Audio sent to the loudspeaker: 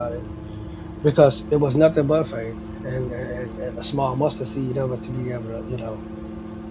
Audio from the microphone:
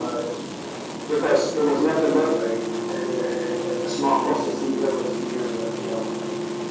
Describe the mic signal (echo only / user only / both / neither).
echo only